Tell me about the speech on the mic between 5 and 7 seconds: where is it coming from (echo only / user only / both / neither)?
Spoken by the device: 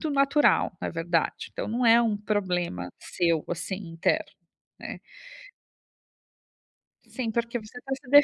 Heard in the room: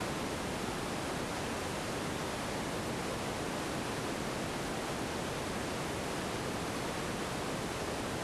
neither